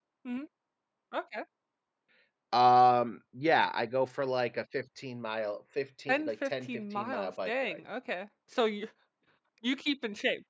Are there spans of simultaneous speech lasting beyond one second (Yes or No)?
Yes